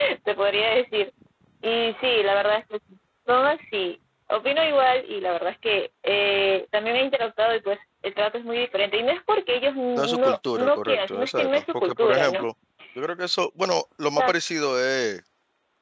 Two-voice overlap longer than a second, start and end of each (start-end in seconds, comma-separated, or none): 9.9-12.4